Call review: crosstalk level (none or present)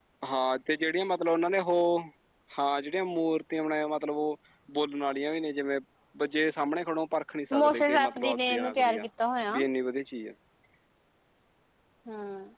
present